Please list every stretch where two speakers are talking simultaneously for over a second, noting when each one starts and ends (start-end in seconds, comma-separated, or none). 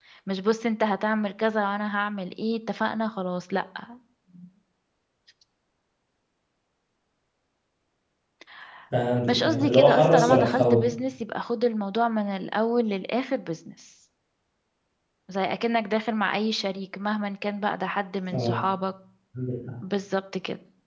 9.3-10.9